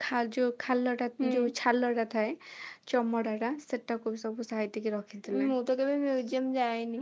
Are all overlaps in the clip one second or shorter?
Yes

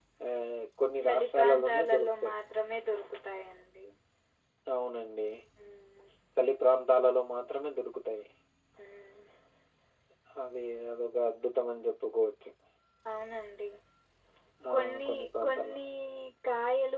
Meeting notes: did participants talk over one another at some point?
Yes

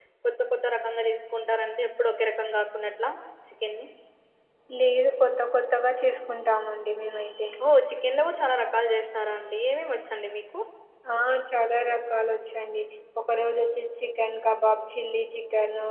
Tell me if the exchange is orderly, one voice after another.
Yes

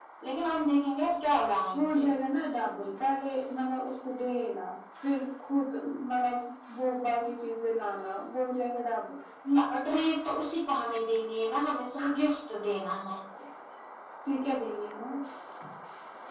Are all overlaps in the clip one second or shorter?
Yes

